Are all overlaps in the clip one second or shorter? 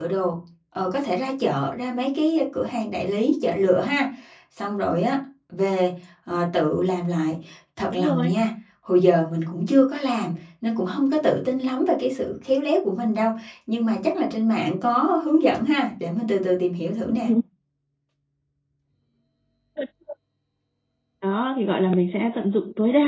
Yes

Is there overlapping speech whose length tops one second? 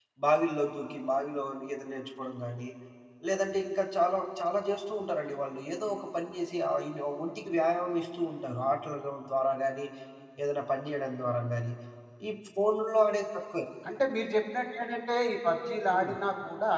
No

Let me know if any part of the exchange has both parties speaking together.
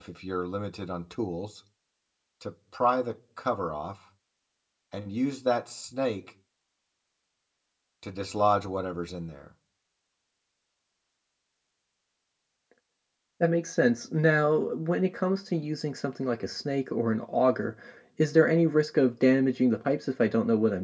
No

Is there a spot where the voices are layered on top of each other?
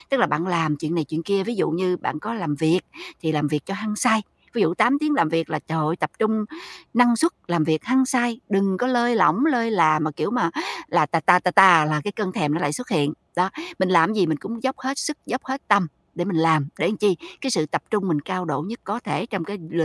No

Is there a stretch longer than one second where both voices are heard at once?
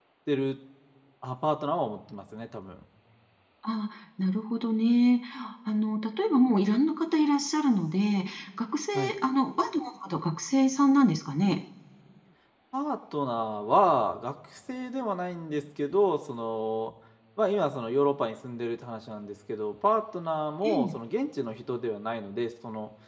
No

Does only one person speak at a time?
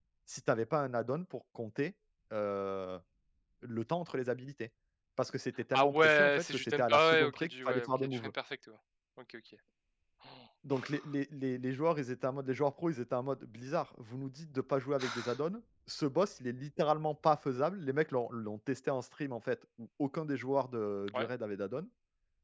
No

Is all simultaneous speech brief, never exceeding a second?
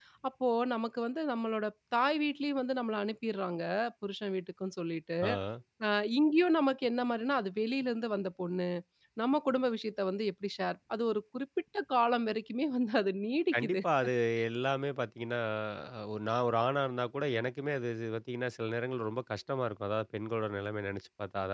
Yes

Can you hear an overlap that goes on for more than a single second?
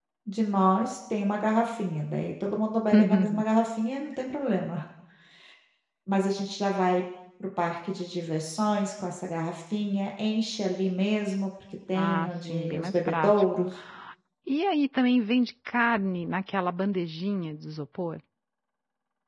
Yes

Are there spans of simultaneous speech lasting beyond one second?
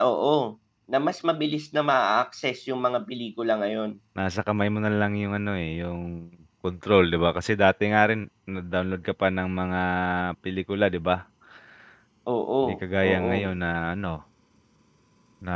No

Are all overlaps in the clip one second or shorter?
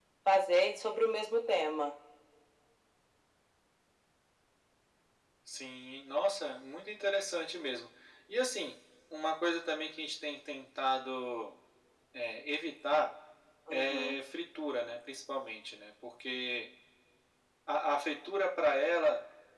Yes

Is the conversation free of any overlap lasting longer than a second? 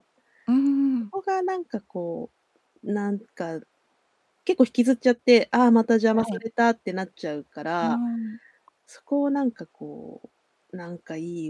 Yes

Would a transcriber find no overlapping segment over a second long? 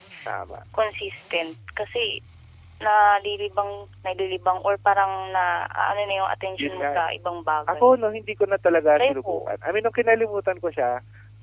Yes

